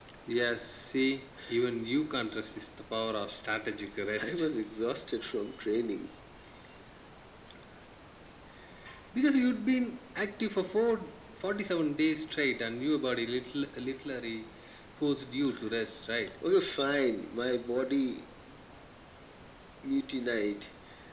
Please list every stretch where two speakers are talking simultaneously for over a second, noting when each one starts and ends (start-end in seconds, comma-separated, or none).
none